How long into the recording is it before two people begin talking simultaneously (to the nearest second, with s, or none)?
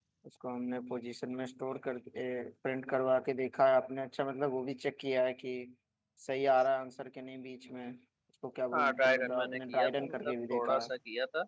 9 s